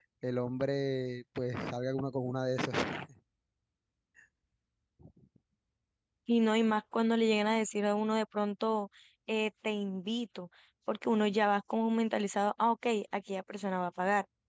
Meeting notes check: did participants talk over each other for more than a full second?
No

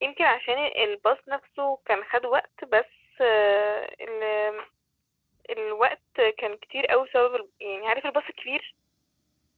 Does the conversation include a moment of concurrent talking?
No

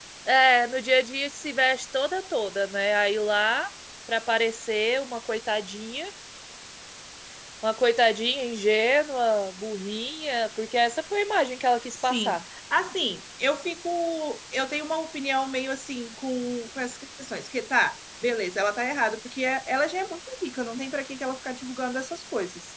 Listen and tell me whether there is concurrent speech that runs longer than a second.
No

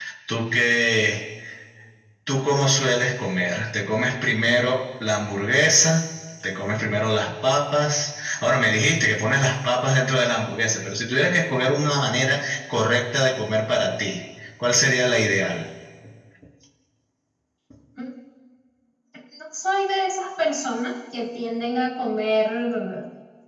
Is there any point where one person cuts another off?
No

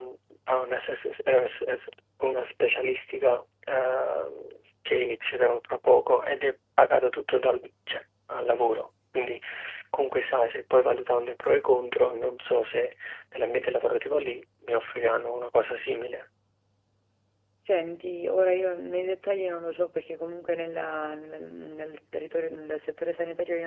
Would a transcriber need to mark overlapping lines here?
No

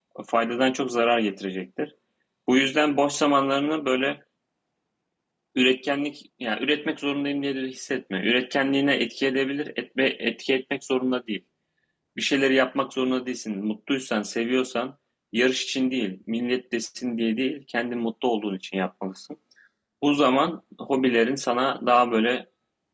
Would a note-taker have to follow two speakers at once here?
No

